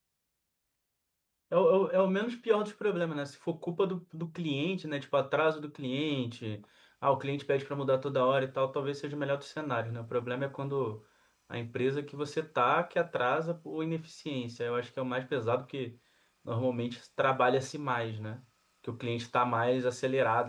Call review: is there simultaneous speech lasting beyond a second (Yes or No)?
No